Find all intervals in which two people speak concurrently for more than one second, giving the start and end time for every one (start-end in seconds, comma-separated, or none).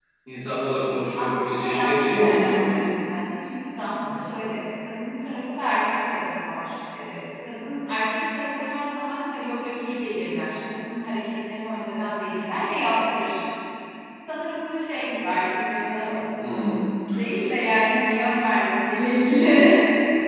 1.2-2.8